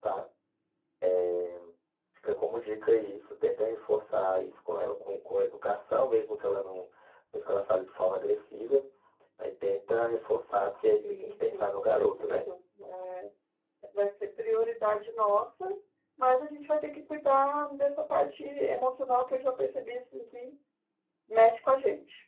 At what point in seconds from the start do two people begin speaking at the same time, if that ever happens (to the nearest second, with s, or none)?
11 s